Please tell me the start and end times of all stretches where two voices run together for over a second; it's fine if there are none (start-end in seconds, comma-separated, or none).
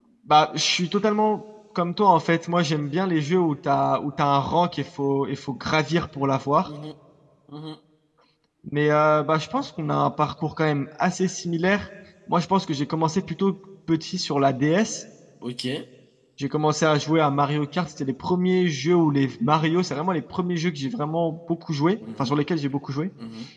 none